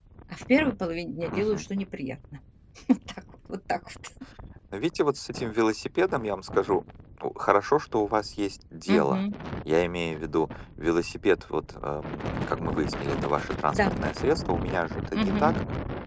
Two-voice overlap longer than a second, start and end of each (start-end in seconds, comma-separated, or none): none